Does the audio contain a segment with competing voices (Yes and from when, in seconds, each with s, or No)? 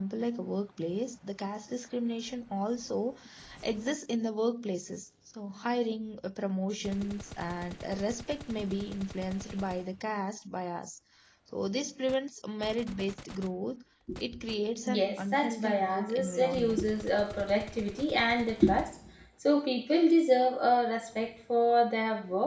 Yes, from 14.9 s